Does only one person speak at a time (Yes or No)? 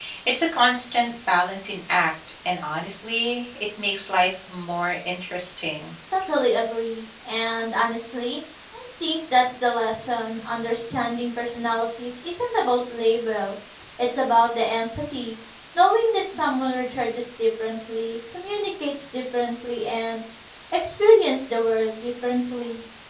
Yes